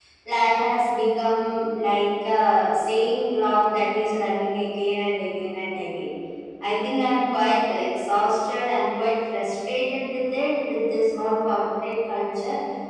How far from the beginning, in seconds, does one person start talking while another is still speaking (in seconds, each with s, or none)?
none